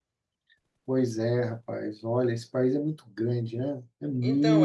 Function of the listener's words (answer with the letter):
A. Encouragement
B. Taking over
B